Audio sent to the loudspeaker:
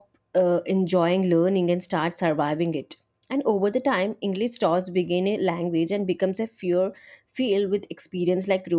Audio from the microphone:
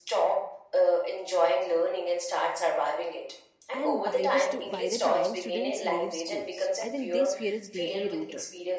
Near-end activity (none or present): present